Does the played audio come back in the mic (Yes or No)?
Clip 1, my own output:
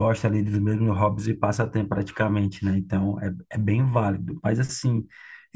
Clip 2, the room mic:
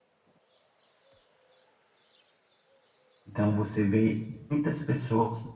No